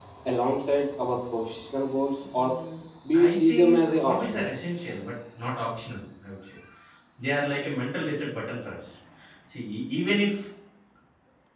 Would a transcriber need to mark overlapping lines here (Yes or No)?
Yes